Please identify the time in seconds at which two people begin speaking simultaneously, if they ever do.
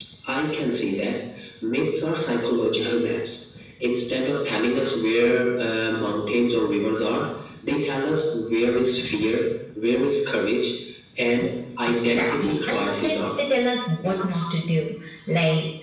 11.9 s

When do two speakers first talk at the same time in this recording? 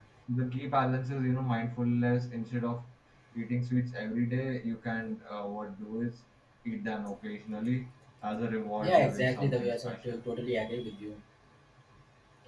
8.8 s

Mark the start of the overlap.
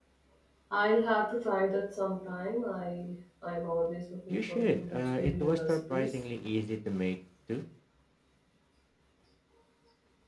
4.3 s

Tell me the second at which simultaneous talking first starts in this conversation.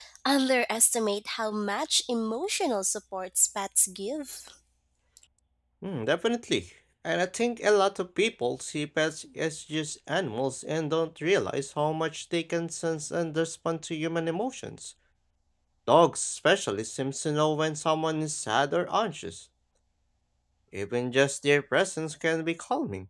none

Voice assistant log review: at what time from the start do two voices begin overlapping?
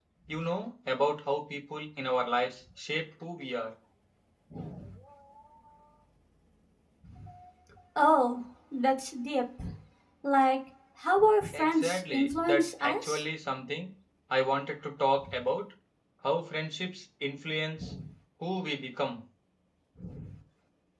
11.5 s

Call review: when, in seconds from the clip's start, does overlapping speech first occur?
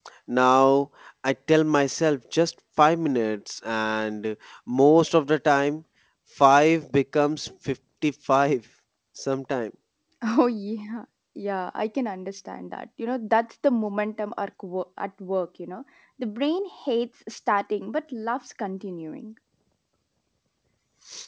none

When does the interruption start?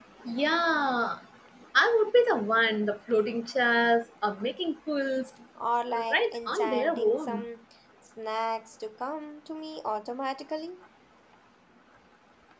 6.1 s

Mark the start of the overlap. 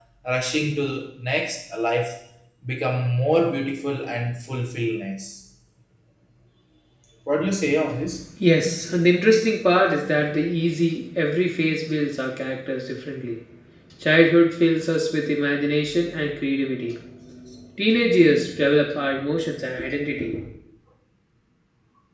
none

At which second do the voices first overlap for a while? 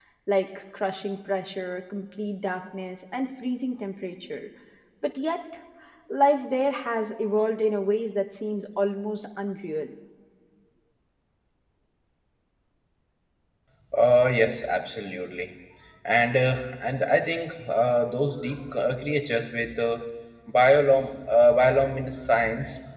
none

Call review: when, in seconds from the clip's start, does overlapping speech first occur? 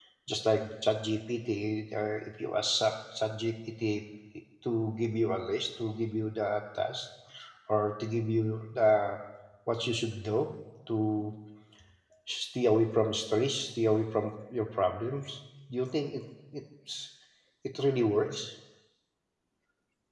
none

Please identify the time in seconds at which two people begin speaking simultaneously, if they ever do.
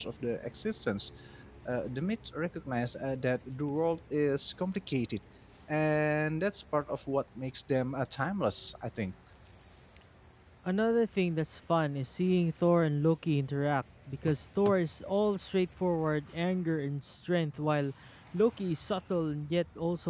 none

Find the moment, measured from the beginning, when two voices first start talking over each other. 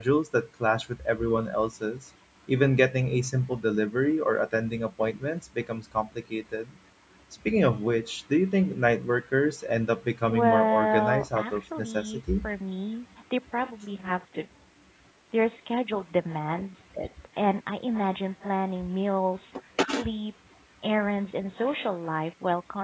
10.3 s

